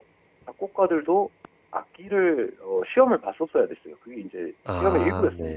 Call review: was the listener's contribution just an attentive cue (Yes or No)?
No